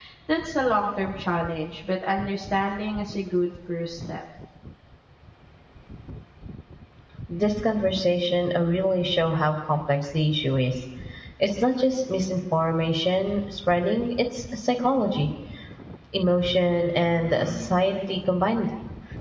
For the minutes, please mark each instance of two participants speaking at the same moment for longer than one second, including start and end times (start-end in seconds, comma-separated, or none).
none